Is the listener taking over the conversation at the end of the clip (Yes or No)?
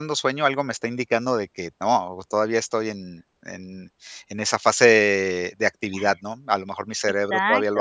Yes